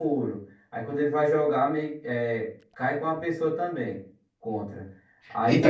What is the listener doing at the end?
listening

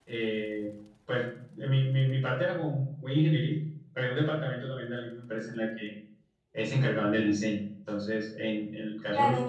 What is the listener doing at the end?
listening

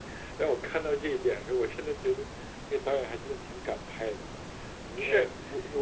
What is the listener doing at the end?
taking over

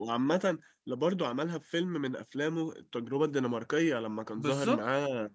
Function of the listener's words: listening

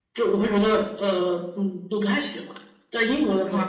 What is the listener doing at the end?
listening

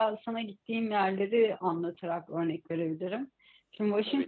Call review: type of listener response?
listening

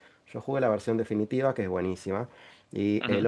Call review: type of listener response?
listening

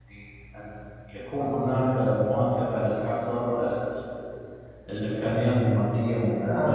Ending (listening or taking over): taking over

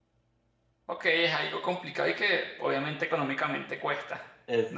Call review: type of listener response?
taking over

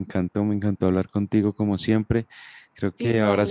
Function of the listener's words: listening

